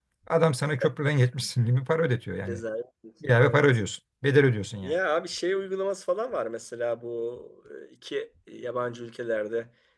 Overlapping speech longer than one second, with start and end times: none

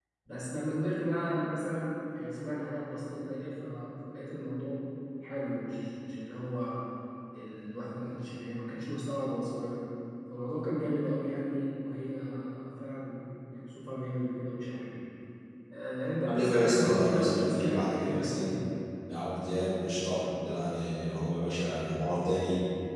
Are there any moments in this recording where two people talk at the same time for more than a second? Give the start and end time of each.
16.3-18.6

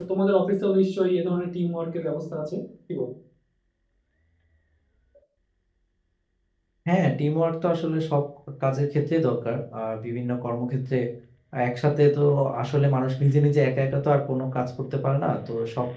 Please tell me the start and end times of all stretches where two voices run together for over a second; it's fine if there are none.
none

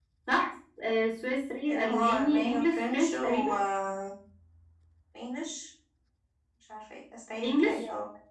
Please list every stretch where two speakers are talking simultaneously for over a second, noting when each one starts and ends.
1.7-3.5

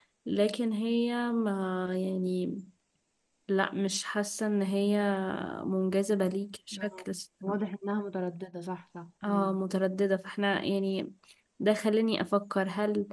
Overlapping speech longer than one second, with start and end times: none

